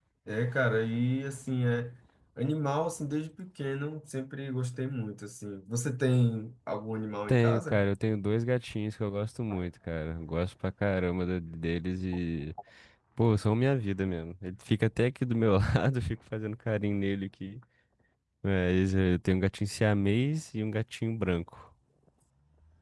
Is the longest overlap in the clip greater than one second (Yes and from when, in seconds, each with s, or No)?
No